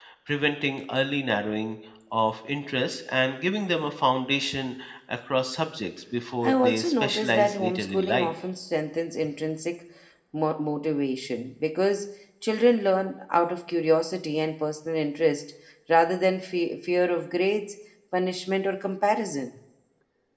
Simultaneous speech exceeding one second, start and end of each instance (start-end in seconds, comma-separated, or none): 6.4-8.3